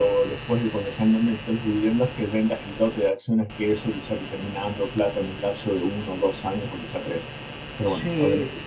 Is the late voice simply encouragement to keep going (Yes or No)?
No